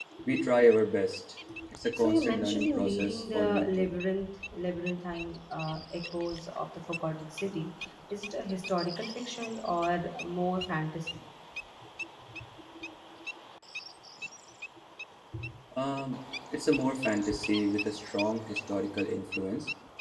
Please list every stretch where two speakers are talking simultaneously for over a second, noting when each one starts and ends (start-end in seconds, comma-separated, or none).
1.9-3.9